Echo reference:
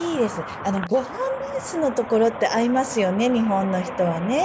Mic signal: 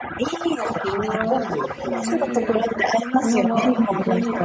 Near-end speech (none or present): present